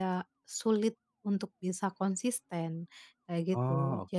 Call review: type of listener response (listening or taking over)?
listening